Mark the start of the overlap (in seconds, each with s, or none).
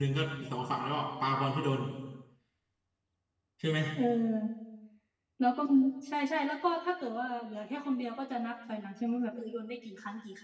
none